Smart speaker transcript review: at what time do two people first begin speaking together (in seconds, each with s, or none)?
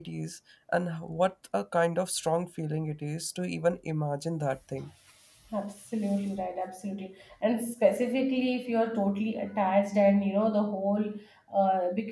none